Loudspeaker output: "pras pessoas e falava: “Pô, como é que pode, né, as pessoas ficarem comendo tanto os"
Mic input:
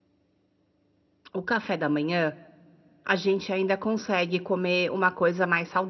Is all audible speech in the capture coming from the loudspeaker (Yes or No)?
No